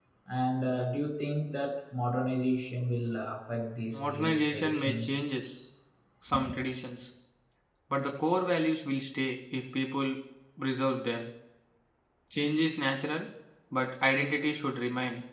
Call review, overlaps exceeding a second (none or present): present